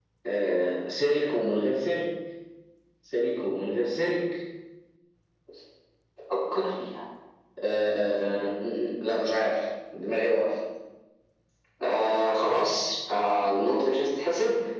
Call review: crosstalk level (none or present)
none